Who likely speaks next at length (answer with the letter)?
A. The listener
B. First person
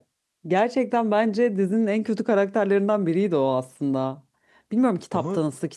B